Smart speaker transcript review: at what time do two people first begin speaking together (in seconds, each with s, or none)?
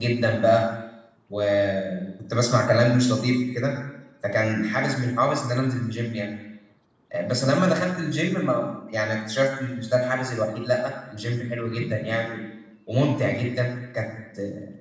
none